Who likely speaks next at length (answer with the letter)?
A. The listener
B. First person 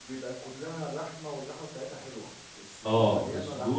A